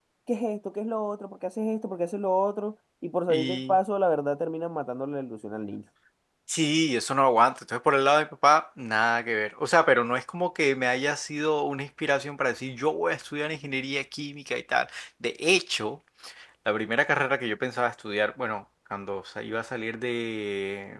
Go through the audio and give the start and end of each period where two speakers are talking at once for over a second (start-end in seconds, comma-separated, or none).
none